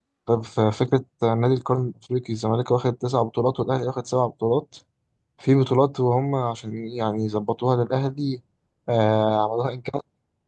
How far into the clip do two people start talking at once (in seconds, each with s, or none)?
none